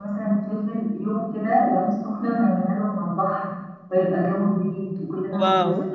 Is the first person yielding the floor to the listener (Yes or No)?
Yes